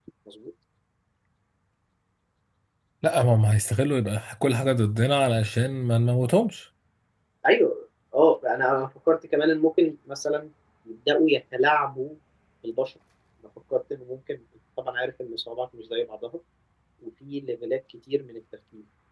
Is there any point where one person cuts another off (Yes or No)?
No